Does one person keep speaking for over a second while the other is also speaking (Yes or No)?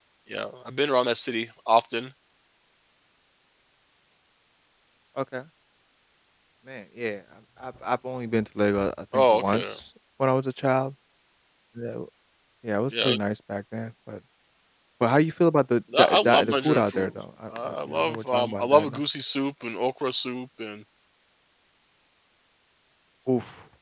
Yes